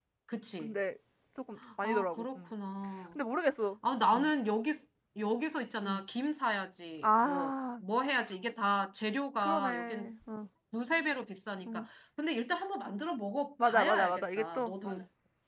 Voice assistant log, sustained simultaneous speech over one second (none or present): present